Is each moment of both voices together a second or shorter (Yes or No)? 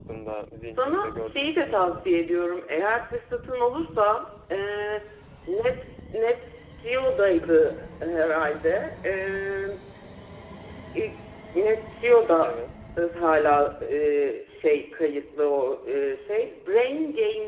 No